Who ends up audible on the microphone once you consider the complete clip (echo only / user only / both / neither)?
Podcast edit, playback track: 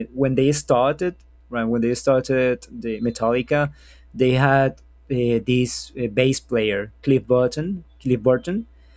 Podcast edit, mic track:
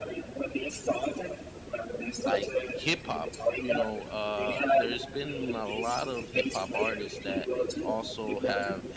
both